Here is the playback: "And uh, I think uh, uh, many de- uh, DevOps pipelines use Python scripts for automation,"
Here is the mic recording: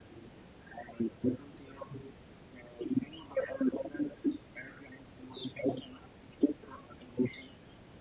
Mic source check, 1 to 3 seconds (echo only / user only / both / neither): echo only